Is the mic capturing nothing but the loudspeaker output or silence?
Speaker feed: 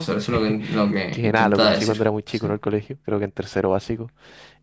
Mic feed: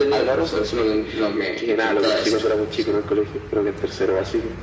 Yes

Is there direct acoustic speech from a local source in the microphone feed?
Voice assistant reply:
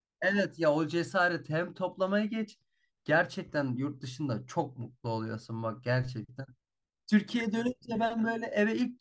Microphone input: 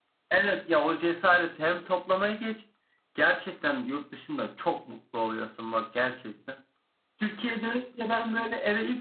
No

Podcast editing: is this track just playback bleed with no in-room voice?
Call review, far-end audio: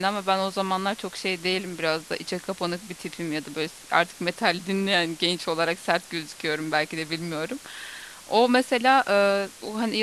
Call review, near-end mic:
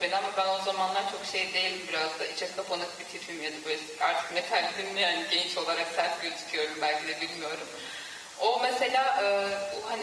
Yes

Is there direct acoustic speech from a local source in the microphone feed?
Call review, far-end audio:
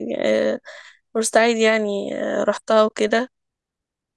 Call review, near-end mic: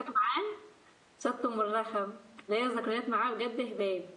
Yes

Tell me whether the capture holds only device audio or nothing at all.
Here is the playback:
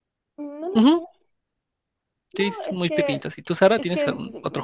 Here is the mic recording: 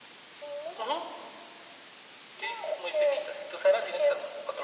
Yes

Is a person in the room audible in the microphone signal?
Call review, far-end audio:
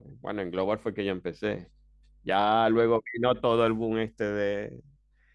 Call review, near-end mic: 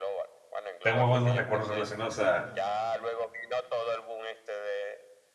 Yes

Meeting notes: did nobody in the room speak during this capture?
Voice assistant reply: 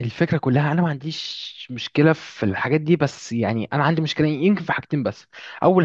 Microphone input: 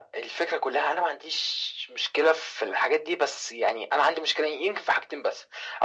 Yes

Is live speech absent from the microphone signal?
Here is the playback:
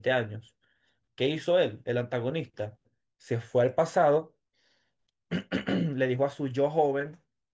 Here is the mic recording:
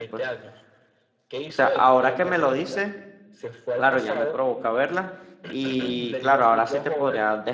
No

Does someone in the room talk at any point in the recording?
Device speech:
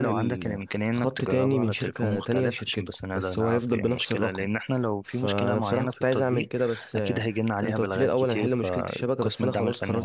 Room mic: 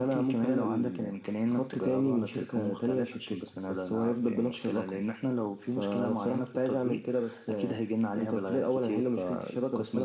No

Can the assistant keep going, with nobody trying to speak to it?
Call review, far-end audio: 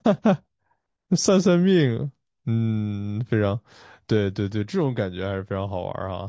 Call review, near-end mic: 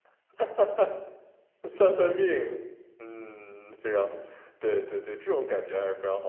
Yes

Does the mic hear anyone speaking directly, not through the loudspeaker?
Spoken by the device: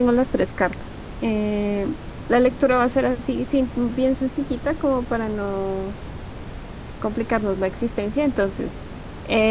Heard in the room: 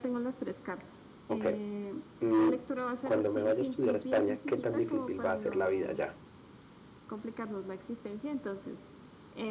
Yes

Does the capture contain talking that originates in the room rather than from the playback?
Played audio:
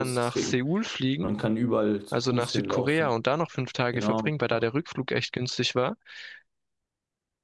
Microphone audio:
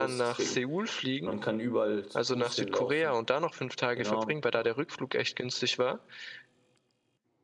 No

